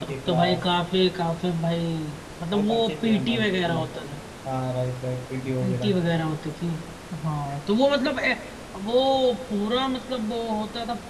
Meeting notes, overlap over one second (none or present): present